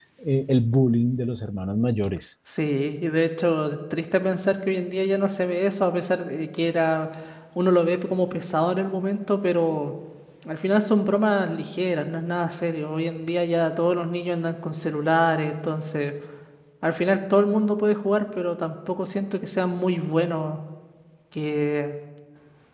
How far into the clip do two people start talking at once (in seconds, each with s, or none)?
none